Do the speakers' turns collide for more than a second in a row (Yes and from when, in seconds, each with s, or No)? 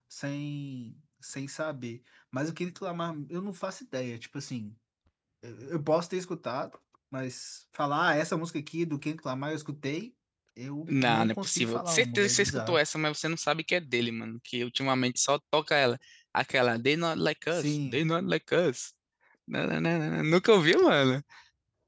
Yes, from 10.9 s